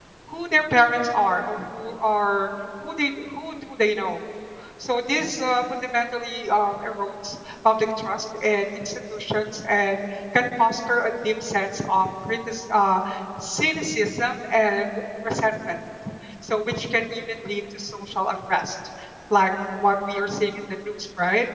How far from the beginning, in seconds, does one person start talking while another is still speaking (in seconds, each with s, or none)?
none